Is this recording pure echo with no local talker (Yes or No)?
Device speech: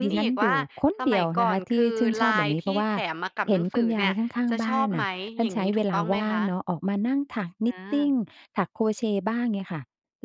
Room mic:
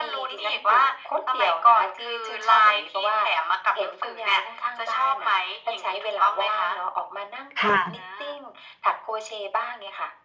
No